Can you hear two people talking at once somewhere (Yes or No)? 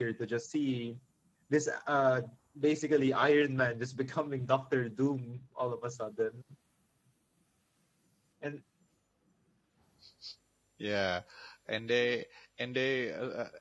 No